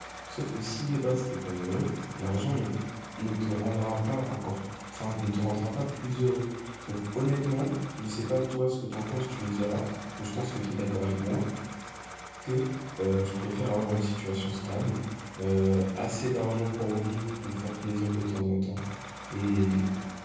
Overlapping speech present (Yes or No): No